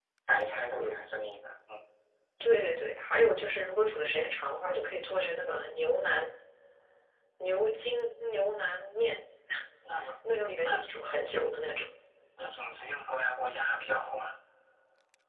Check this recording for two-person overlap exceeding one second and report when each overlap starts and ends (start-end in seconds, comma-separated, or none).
none